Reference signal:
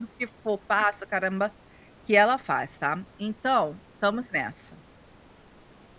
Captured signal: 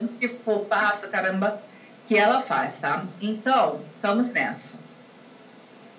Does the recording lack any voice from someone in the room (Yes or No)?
Yes